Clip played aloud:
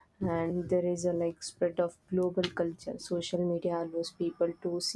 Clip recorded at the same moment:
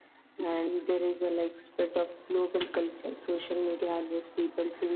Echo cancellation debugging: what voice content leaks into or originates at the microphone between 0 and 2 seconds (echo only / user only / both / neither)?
echo only